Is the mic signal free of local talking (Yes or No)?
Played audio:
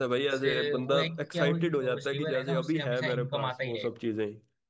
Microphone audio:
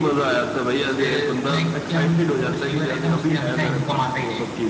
Yes